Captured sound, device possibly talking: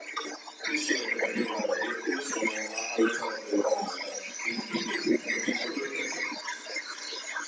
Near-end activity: none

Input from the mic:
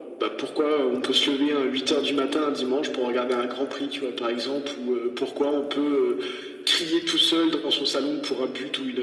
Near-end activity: none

